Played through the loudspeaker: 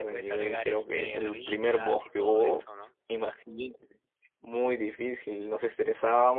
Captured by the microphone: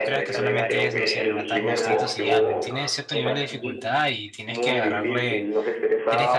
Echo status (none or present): present